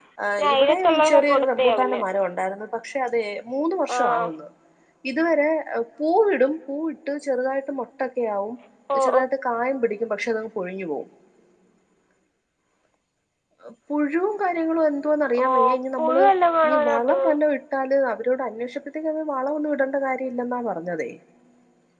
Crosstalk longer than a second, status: present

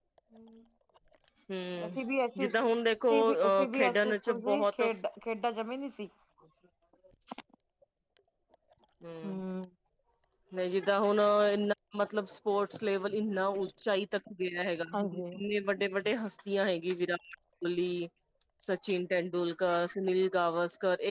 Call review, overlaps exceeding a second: present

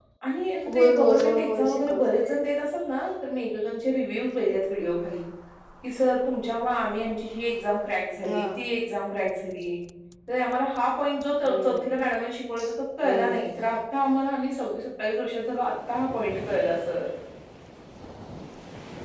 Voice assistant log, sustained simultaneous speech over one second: present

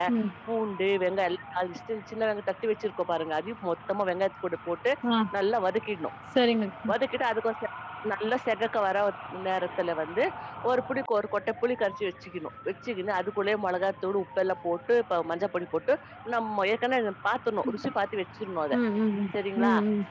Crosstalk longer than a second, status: none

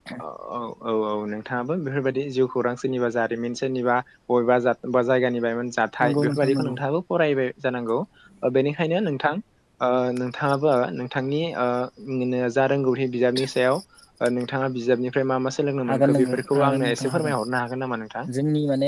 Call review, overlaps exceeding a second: present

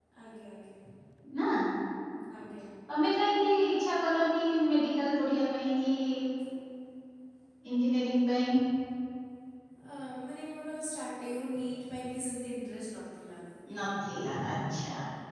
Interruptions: none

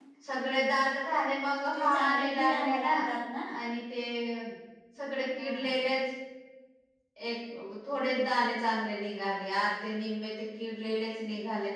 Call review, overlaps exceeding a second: present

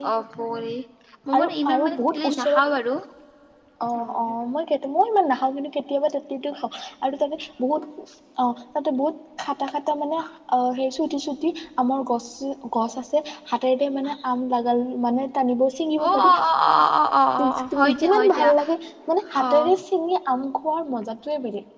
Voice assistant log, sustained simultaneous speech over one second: present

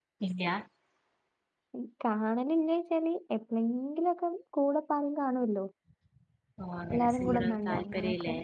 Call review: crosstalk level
present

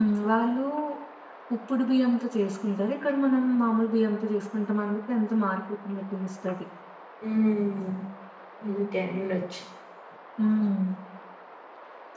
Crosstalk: none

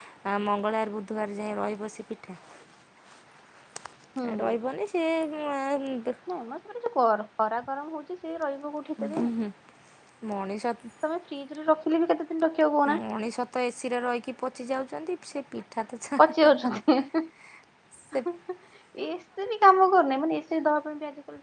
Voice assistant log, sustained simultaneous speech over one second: none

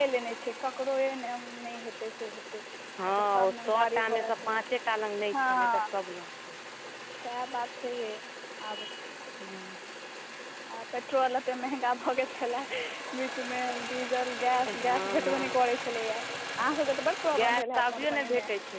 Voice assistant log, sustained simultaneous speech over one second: present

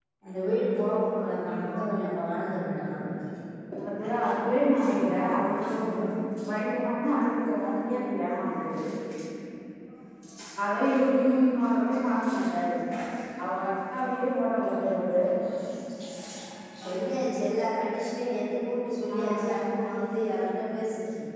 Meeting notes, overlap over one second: none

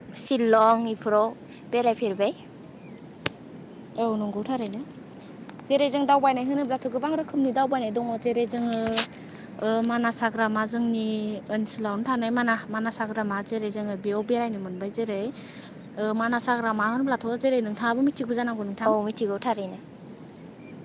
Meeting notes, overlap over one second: none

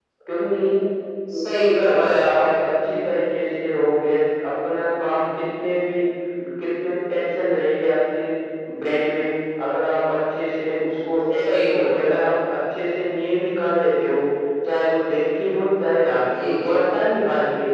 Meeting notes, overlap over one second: present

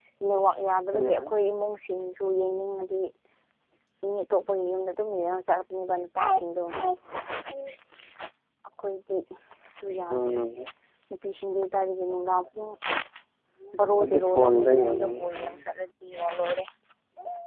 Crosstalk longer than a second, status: present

